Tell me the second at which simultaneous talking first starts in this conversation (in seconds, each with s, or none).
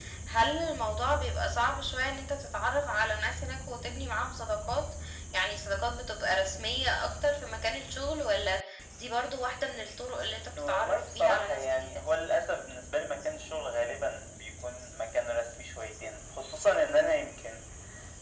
10.6 s